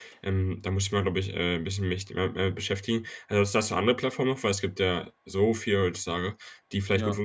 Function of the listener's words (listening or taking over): listening